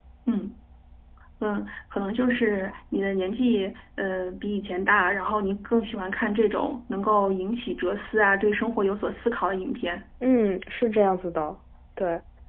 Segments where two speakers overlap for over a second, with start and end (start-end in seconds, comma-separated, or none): none